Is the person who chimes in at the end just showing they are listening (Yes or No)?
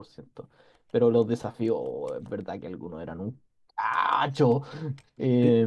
No